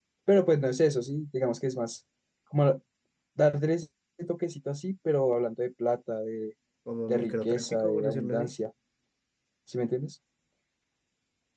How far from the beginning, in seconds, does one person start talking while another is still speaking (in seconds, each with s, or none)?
7.1 s